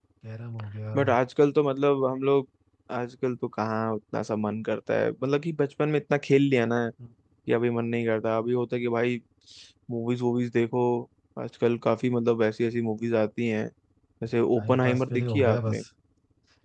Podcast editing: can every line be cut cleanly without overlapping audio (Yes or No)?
No